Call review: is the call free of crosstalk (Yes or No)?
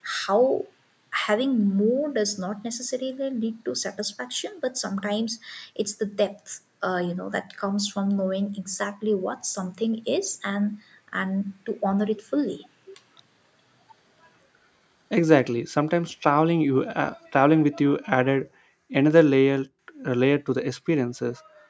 Yes